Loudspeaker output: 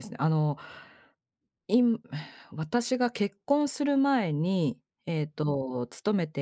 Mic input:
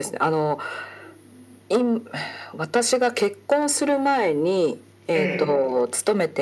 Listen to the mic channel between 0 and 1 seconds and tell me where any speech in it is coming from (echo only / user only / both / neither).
echo only